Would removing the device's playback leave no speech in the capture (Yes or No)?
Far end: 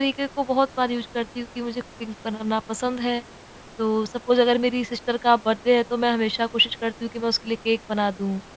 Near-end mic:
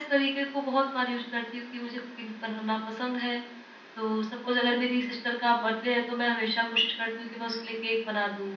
Yes